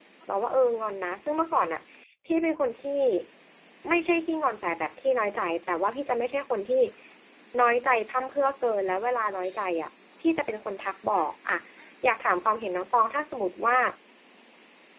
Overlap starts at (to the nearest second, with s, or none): none